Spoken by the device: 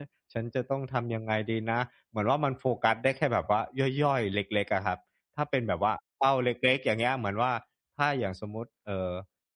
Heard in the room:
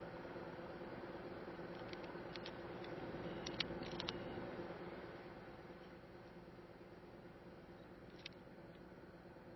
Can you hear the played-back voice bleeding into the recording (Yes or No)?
No